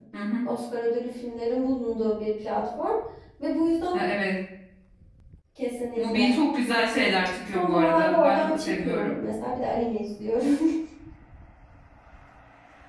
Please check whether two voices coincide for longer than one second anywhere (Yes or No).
Yes